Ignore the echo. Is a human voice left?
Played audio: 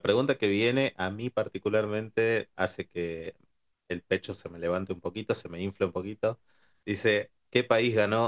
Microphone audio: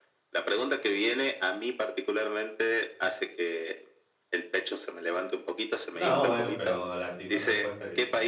Yes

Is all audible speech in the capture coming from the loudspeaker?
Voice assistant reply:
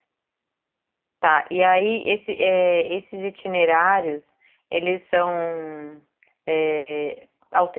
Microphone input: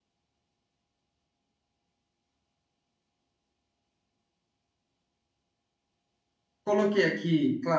No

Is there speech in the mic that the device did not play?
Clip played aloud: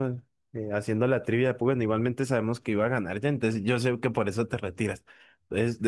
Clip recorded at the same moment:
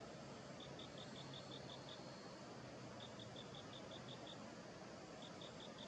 No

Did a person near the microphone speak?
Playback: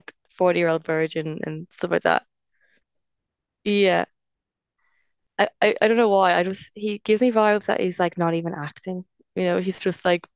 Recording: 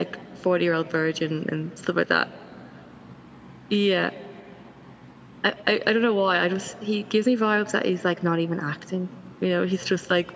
No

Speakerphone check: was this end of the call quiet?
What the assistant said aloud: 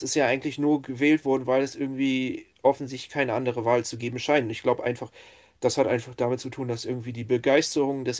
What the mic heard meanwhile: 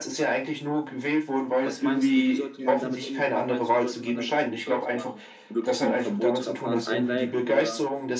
No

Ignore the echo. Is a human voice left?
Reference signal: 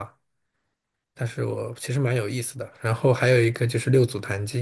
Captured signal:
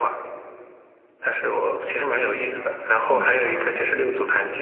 Yes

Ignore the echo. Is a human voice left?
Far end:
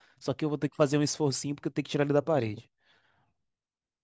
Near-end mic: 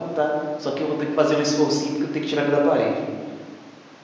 No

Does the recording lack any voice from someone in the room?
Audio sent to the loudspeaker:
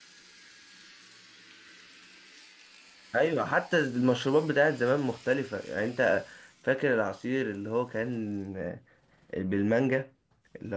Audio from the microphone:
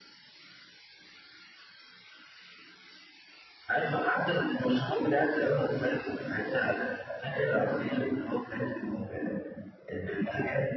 Yes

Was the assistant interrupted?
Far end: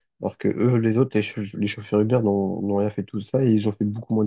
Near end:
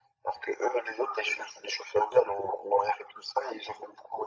No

